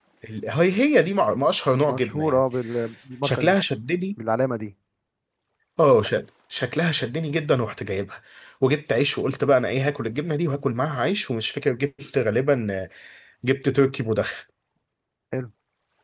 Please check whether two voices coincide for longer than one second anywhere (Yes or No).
No